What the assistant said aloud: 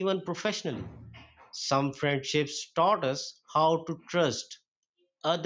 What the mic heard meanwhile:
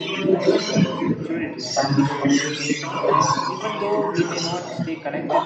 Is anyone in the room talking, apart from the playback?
Yes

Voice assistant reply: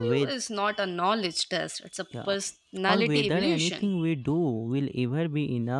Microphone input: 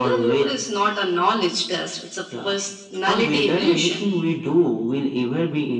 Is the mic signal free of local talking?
Yes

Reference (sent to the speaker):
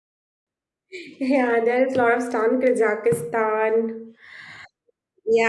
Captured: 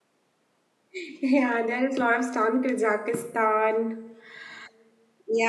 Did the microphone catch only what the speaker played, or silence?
Yes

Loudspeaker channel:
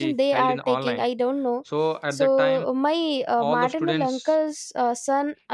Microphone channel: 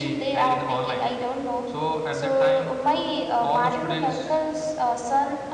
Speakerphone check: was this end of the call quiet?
Yes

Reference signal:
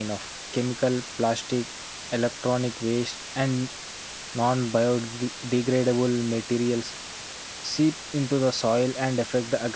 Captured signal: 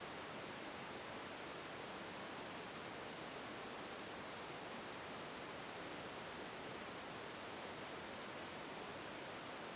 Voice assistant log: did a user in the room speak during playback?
No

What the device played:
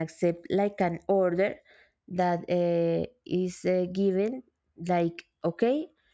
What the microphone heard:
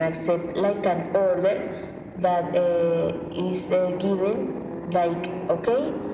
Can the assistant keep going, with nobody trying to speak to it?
Yes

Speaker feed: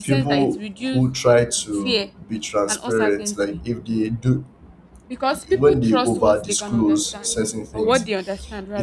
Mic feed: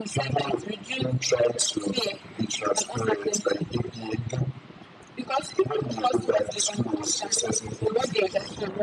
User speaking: No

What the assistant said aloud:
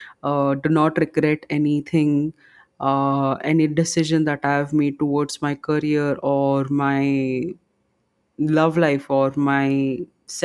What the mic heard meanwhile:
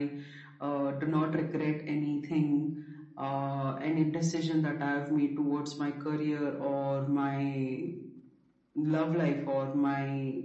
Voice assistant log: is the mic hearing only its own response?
Yes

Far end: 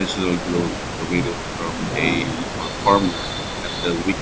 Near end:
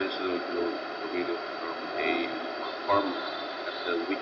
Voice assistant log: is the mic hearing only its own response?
Yes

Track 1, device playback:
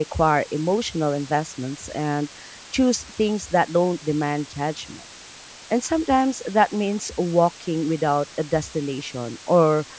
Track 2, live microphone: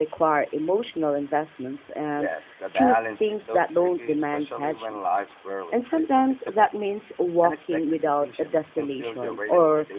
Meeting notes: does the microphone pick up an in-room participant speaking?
Yes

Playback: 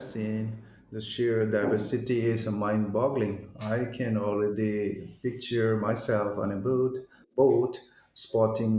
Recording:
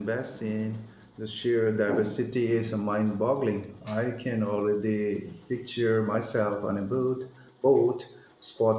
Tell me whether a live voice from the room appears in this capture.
No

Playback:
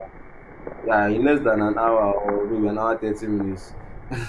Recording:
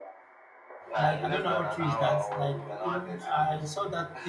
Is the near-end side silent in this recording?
No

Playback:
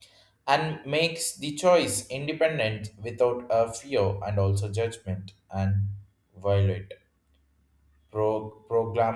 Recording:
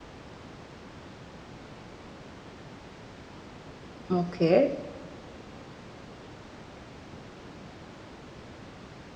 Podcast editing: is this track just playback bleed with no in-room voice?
No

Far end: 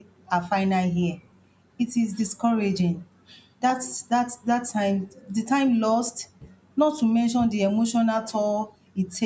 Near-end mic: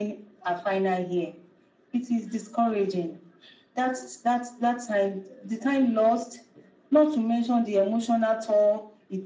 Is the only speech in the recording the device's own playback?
Yes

